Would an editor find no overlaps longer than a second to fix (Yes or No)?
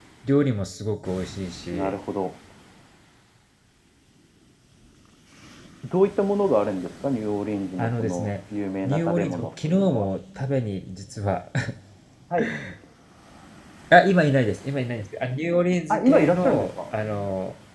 No